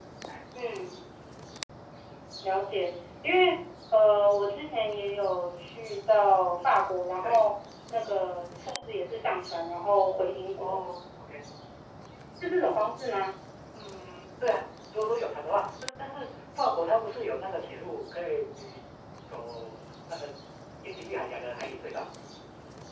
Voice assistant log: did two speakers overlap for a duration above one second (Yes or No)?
No